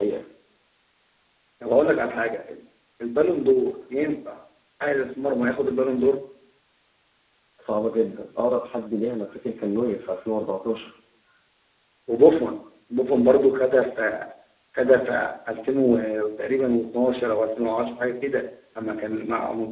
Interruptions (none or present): none